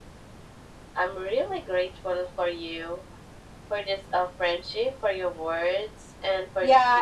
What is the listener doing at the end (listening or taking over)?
taking over